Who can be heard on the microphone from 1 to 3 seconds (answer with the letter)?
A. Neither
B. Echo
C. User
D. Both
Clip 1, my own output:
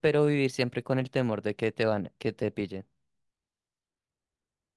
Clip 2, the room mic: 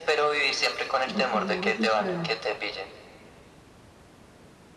D